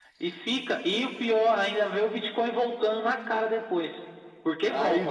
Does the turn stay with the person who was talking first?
No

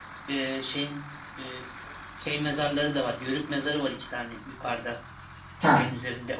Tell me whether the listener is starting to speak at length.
No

